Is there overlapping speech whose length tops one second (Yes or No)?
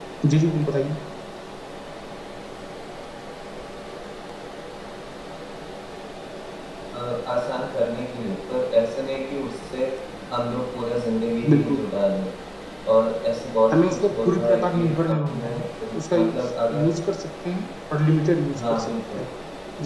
Yes